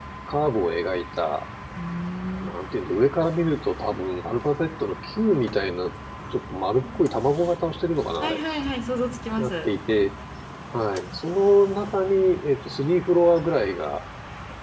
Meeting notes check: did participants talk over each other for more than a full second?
No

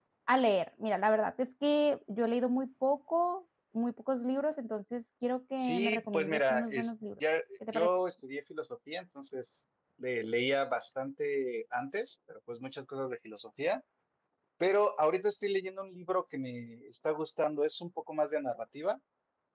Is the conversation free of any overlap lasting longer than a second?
No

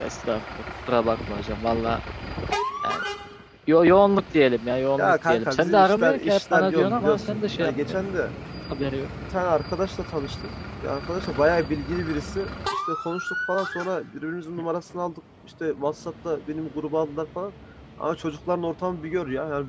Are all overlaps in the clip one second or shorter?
No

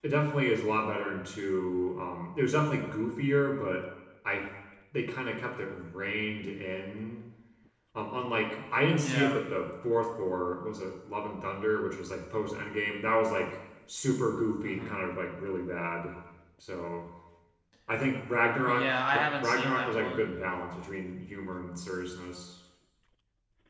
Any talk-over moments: Yes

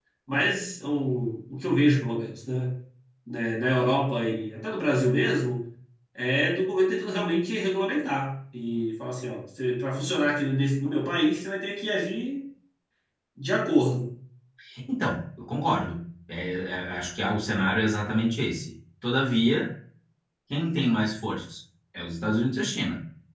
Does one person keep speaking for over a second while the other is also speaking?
No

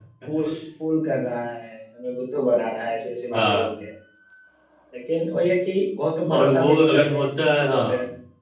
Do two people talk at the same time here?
Yes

